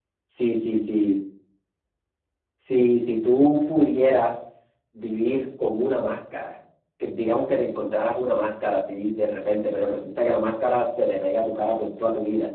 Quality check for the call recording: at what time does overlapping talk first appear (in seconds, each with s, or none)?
none